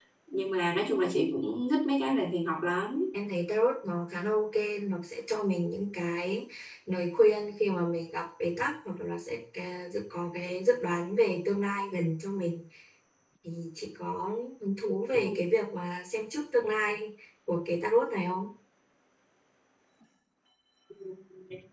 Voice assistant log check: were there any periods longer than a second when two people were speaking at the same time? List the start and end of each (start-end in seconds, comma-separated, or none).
none